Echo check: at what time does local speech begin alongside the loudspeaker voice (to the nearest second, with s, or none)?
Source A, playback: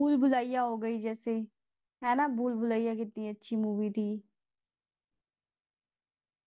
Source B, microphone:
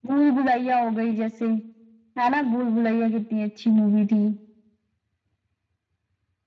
none